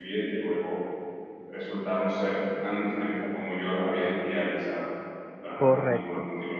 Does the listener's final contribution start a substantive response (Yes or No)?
Yes